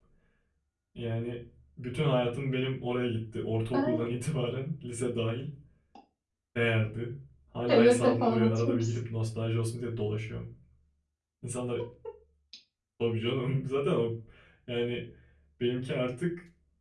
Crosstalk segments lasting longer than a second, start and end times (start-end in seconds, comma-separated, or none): 7.7-8.9